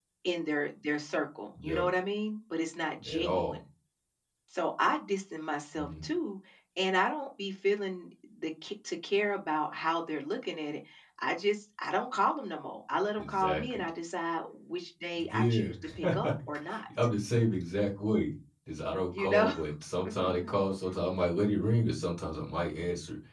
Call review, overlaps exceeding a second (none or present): present